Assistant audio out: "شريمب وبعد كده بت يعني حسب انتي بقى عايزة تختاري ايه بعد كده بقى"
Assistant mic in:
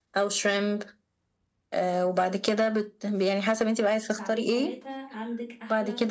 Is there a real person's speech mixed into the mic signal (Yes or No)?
Yes